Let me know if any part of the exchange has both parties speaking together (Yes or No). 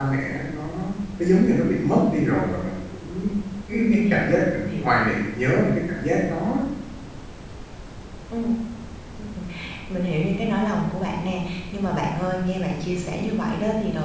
Yes